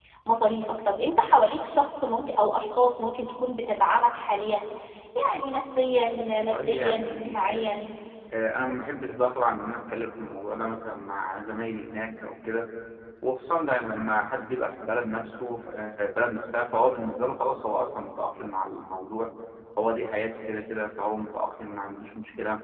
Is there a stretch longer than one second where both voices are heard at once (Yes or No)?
Yes